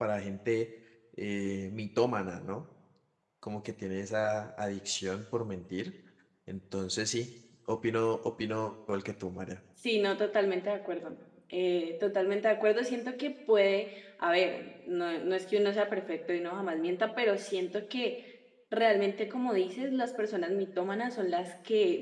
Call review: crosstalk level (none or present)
none